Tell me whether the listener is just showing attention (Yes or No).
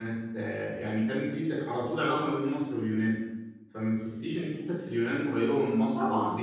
No